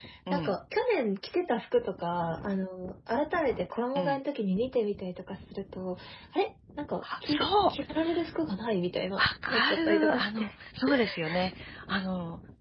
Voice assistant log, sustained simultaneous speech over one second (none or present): present